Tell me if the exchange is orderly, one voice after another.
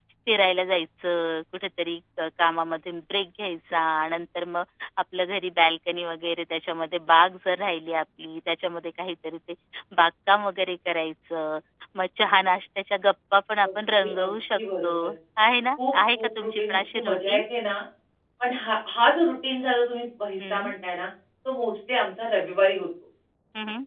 No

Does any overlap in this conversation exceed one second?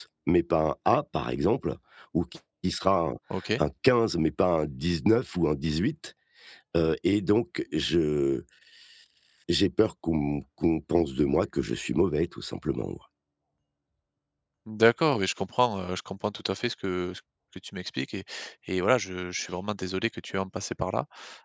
No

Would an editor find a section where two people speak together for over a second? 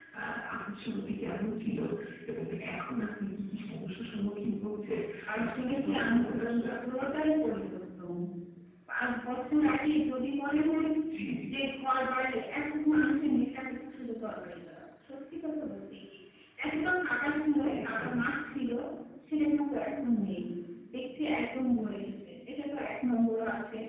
Yes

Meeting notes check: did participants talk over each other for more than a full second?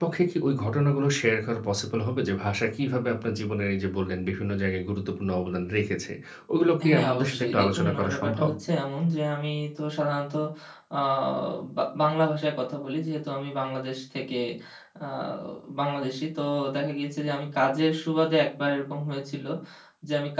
Yes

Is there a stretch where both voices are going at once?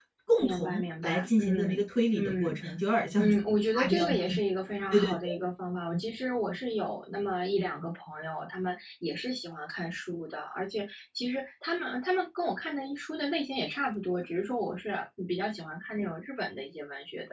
Yes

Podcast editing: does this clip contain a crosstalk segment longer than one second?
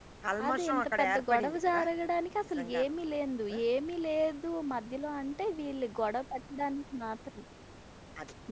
Yes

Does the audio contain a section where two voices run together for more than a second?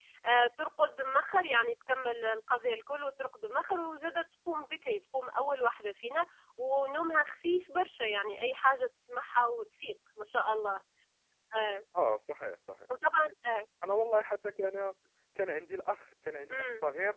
No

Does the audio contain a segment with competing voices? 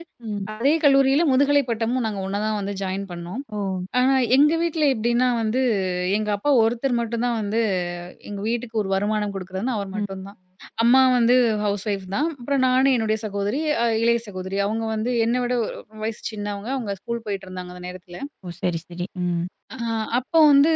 No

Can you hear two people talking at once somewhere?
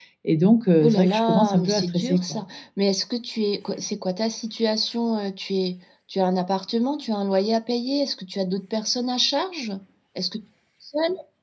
Yes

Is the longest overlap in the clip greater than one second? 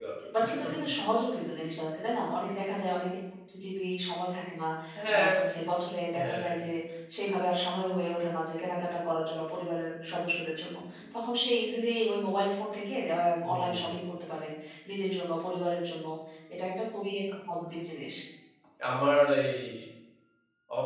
No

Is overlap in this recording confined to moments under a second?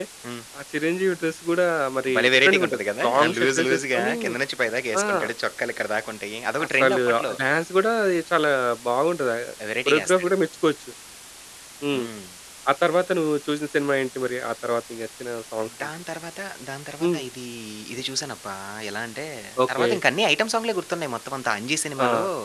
No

